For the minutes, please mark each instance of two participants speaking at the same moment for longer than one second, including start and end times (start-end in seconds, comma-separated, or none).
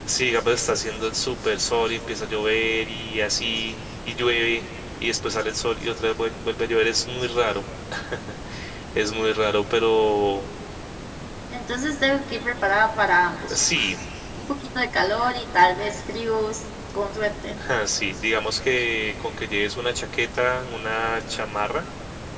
none